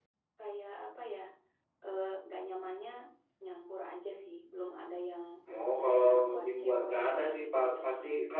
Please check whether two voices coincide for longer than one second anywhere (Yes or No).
Yes